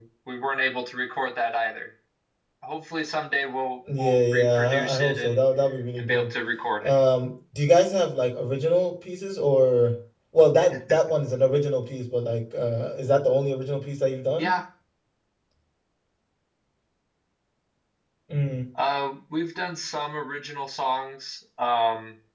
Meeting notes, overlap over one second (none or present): present